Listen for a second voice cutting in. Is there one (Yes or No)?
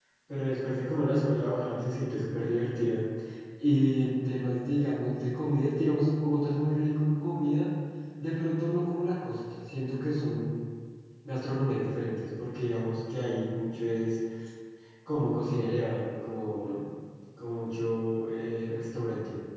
No